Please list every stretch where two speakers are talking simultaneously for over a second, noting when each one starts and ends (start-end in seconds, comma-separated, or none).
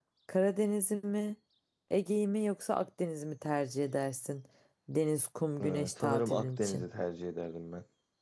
5.6-6.8